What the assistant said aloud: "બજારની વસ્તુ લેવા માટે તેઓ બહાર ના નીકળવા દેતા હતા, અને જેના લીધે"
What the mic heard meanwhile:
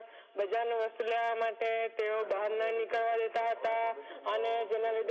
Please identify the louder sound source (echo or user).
echo